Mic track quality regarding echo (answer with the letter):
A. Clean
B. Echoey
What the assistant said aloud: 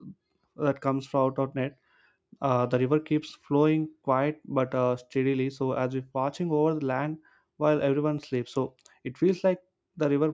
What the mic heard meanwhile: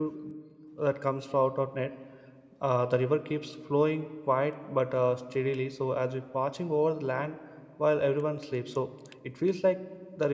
B